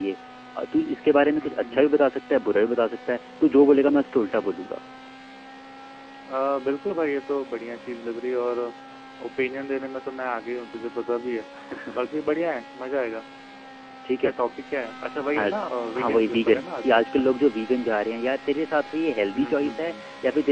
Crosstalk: present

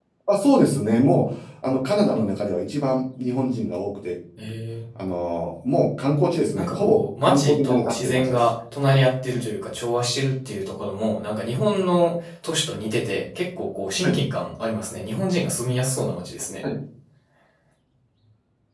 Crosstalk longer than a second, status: present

